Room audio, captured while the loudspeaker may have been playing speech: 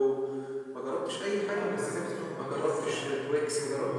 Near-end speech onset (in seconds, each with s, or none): 1.3 s